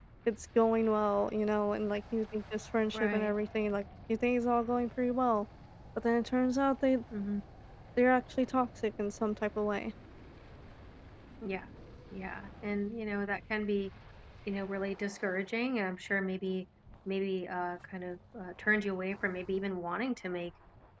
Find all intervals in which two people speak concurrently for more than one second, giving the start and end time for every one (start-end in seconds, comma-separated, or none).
none